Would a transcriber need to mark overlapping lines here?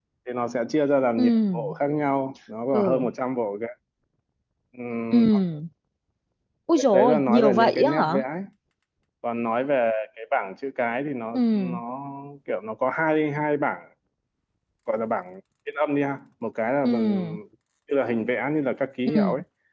Yes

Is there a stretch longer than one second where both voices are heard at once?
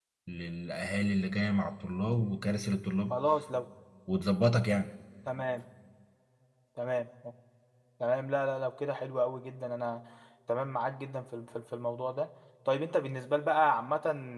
No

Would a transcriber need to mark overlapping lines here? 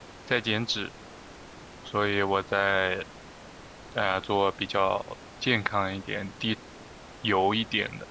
No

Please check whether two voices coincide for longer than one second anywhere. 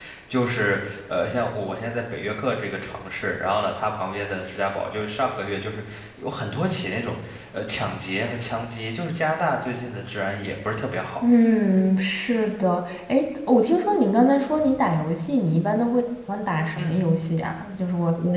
No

